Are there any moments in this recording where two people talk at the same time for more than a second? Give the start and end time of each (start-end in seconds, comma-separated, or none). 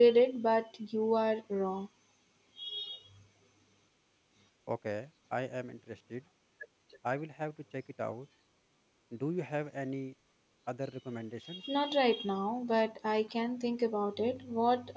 none